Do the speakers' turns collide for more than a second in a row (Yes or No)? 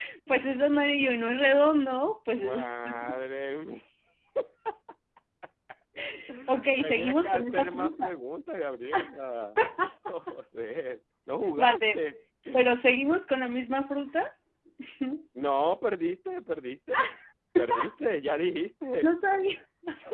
Yes